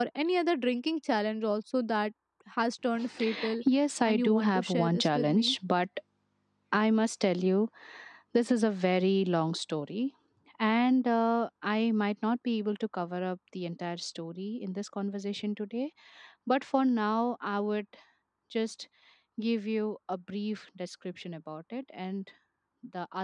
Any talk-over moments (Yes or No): Yes